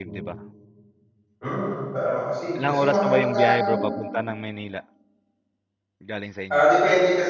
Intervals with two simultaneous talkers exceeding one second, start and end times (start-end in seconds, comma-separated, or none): 2.5-3.9